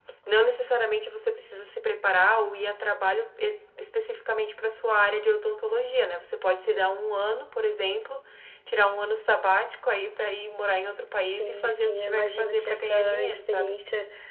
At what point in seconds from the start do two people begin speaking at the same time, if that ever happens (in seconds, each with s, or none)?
11.2 s